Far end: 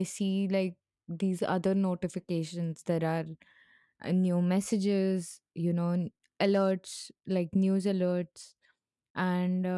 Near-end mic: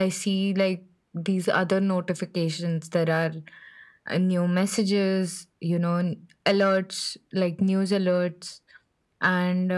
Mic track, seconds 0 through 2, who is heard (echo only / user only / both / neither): echo only